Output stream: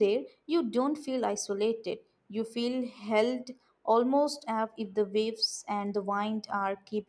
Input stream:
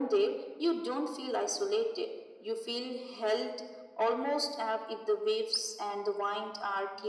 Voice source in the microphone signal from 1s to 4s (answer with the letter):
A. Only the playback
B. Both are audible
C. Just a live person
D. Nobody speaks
A